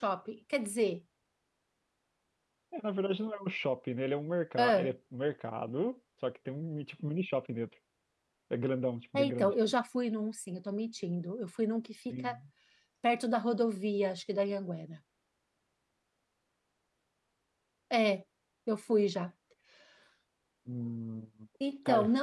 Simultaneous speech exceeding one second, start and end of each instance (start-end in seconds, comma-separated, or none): none